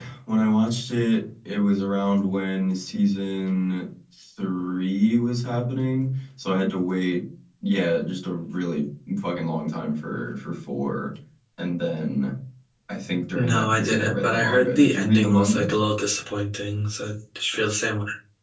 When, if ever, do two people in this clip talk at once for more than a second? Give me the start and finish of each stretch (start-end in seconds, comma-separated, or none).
13.4-15.7